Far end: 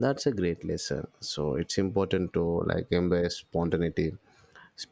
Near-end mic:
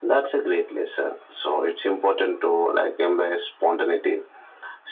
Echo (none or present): present